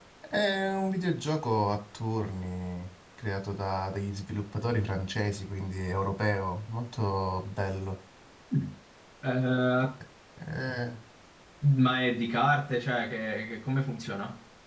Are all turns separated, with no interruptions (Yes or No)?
Yes